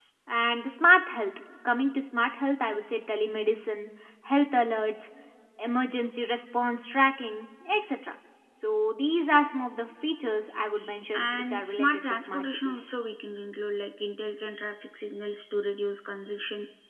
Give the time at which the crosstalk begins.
11.1 s

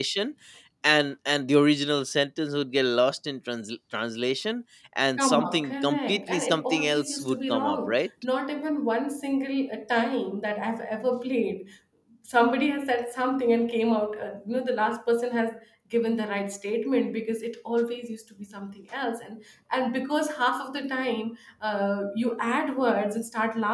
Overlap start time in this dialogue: 5.2 s

